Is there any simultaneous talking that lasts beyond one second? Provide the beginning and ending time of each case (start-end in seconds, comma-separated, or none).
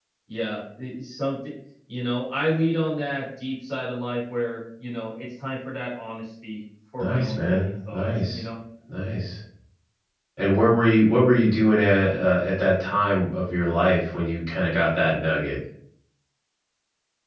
7.0-8.4